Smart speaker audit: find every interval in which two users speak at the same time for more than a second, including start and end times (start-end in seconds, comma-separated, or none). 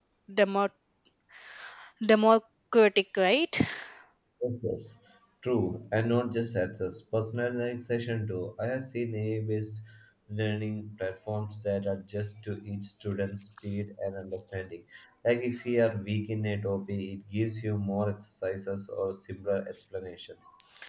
none